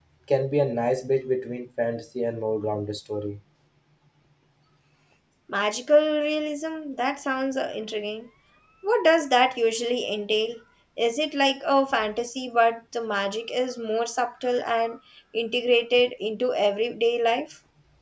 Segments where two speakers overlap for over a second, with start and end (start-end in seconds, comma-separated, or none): none